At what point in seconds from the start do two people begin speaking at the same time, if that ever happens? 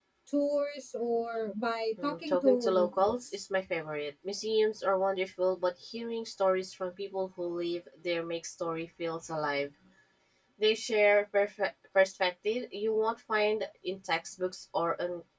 2.0 s

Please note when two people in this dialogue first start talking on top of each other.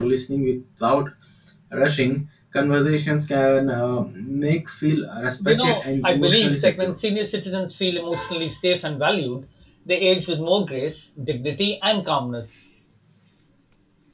5.4 s

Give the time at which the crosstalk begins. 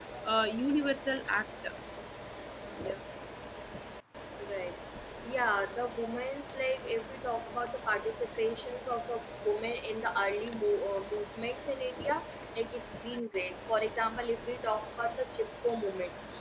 none

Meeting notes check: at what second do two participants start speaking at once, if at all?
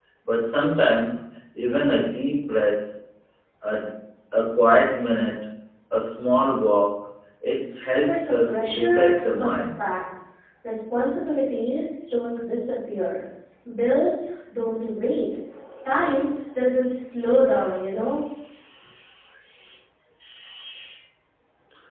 8.1 s

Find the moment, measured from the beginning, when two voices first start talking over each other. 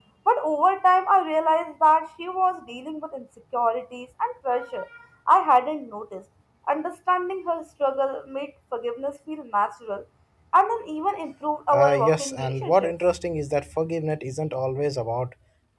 11.7 s

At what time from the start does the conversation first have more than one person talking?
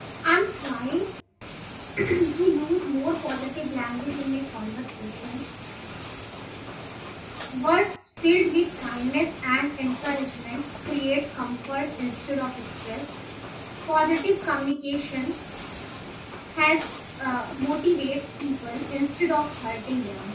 none

